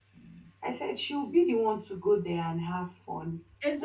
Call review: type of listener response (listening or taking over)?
taking over